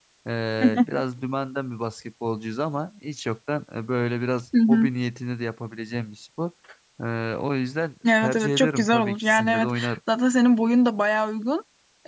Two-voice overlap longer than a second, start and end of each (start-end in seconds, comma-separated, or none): 8.2-9.7